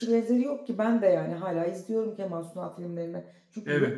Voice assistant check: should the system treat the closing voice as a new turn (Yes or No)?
No